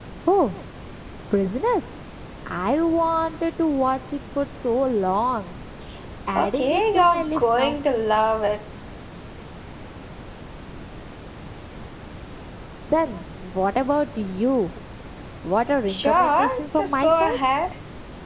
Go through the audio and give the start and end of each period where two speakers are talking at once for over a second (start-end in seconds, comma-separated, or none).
6.3-7.8, 15.9-17.4